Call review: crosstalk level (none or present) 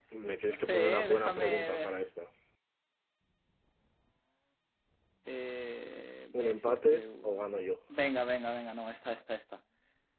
present